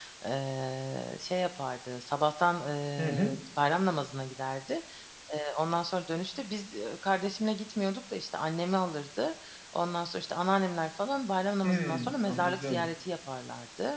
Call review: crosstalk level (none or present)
present